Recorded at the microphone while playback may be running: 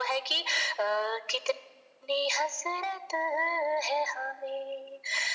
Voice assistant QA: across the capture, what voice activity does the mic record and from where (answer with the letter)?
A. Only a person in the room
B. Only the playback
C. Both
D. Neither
B